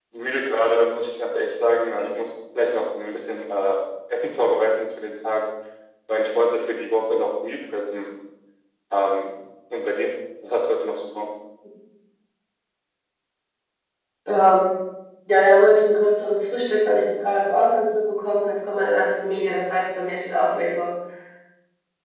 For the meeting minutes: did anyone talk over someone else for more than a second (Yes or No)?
No